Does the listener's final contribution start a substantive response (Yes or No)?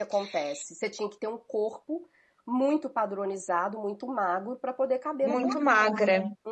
Yes